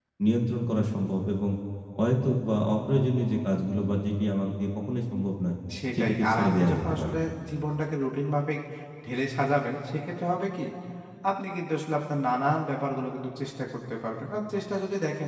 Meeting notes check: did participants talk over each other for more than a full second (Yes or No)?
Yes